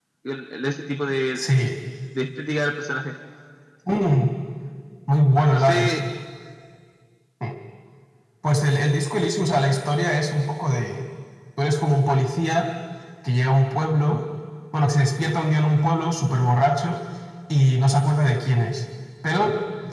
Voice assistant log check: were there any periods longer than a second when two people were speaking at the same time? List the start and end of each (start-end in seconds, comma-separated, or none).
none